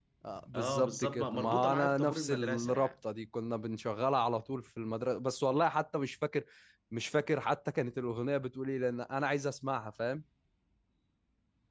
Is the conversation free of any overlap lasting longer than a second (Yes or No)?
No